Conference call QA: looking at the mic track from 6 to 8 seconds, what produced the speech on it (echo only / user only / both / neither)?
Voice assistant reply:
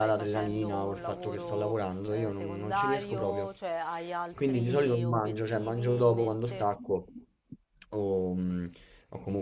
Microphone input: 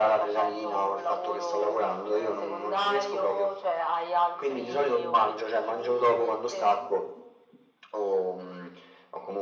echo only